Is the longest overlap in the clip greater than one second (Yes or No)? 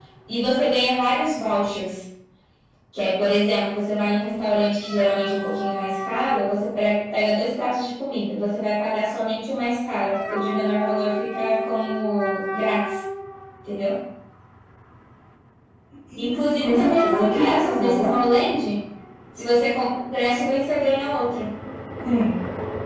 Yes